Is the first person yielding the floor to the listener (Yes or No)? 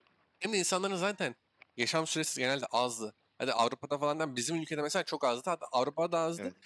No